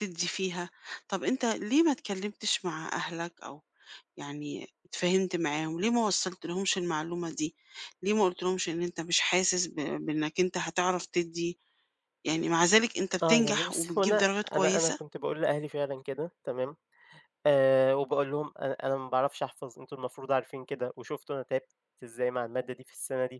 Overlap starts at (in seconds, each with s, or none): 13.2 s